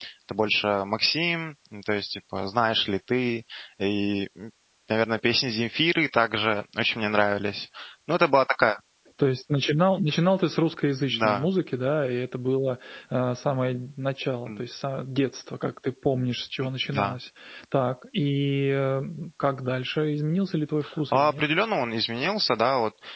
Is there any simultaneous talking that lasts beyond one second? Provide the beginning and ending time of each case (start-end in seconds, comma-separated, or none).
none